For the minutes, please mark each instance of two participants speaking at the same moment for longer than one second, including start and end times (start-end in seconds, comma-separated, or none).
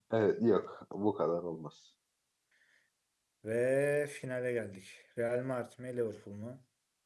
none